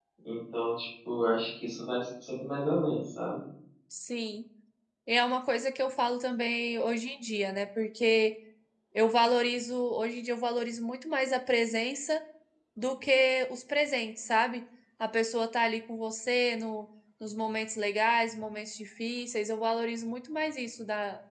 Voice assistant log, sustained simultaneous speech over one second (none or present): none